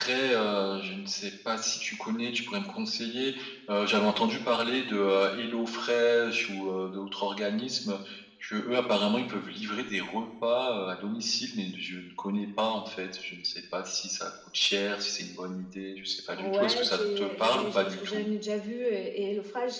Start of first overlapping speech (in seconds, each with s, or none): 16.4 s